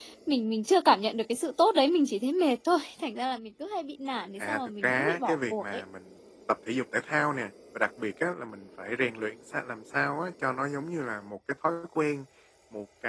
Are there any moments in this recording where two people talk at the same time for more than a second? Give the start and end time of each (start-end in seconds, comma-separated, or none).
4.4-5.8